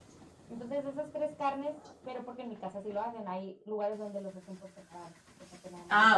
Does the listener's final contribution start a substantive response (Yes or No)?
Yes